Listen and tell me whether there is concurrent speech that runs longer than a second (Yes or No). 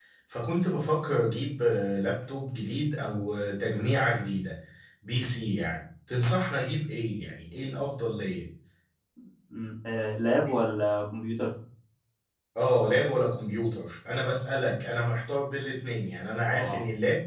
No